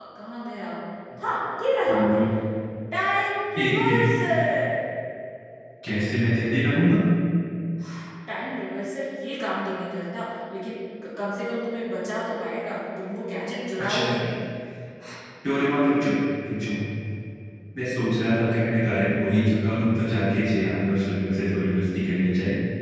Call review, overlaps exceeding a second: none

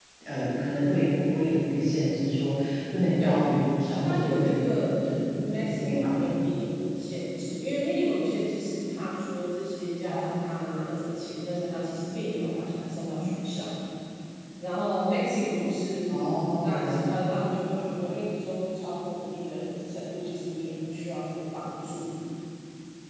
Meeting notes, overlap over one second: present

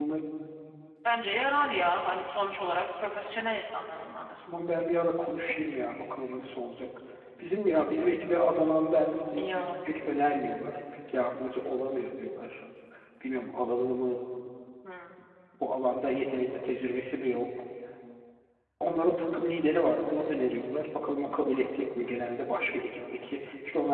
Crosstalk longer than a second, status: none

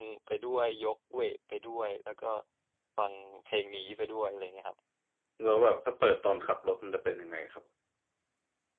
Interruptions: none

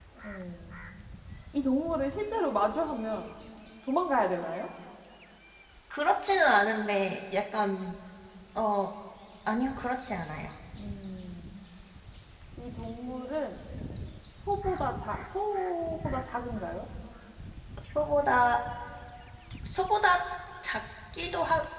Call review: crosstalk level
none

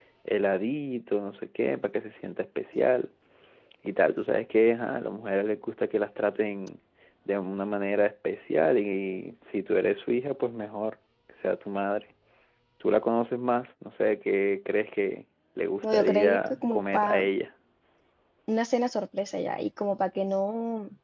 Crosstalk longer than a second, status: present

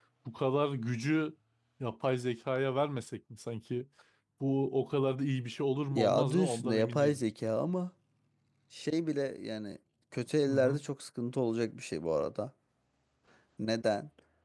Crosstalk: present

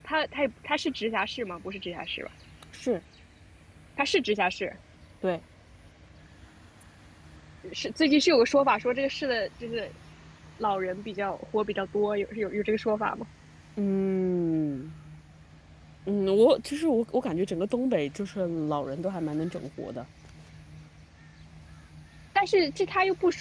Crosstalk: none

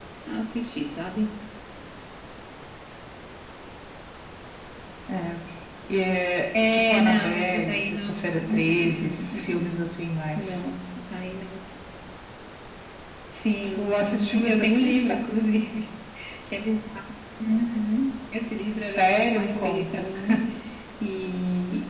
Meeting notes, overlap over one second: present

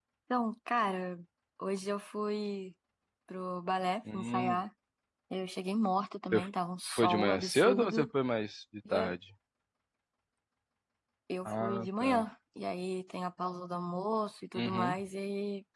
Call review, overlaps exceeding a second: present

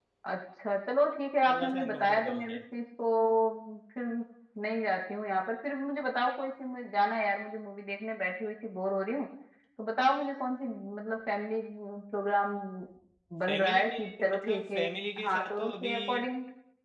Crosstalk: present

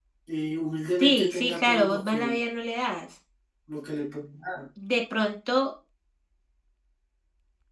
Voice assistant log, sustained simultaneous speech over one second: present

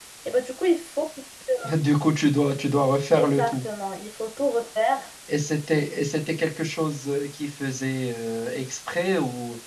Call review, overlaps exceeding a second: none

